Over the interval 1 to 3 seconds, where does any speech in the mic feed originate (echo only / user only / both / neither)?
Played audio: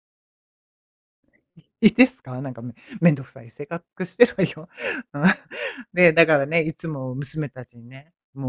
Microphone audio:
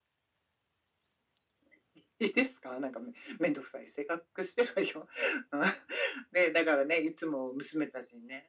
echo only